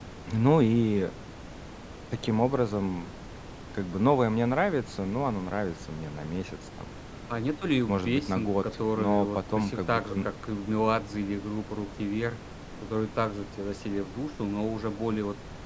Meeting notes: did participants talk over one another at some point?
Yes, from 7.9 s

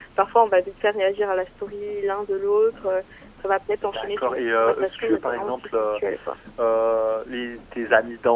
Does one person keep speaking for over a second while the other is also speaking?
Yes, from 3.8 s

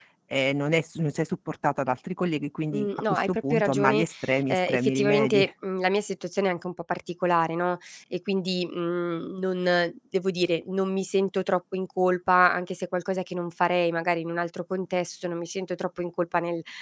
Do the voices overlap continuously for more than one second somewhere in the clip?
Yes, from 2.7 s

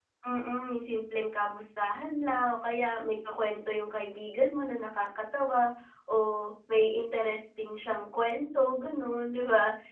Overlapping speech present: No

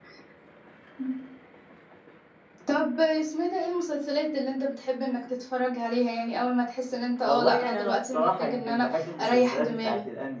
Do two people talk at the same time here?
Yes, from 7.2 s

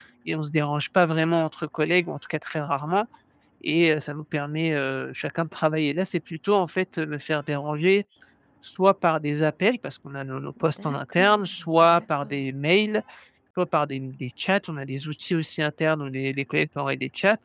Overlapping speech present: Yes, from 10.6 s

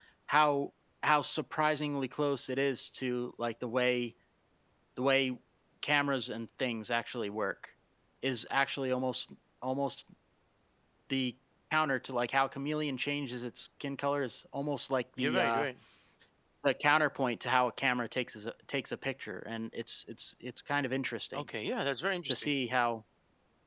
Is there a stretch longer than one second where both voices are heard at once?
No

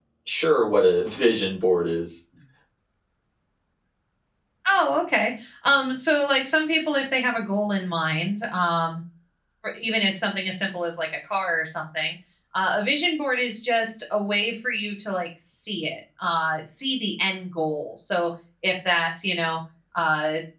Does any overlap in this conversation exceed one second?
No

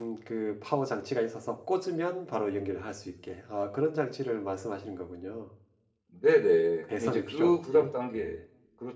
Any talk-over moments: Yes, from 6.9 s

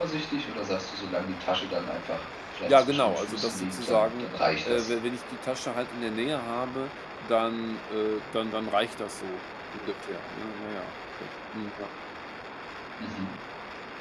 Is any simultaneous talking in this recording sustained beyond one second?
Yes, from 2.6 s

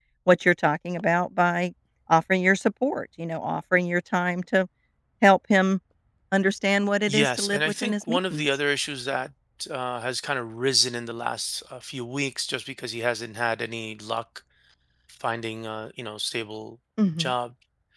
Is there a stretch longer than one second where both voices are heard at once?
Yes, from 7.1 s

